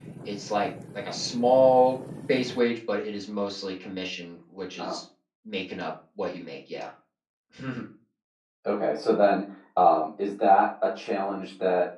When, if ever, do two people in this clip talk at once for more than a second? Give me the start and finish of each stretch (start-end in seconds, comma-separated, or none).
none